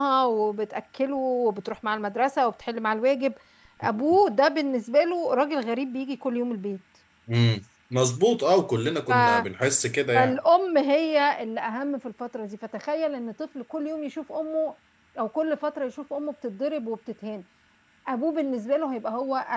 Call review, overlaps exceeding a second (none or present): none